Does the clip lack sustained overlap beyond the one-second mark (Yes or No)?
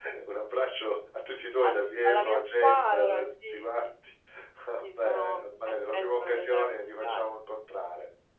No